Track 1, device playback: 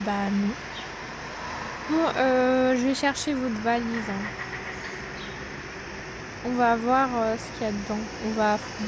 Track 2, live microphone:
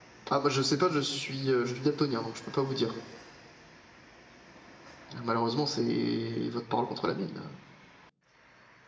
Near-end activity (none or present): present